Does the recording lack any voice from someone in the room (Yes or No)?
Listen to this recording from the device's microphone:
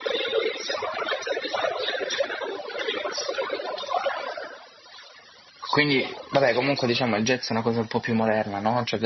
No